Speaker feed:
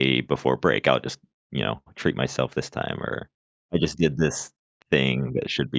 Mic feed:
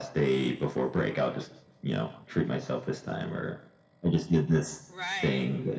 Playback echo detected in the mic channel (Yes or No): Yes